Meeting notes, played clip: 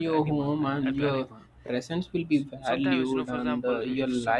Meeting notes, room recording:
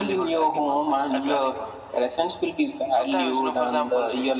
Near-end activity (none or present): none